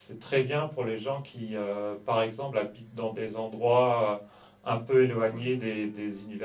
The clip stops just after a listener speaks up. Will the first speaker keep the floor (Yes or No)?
Yes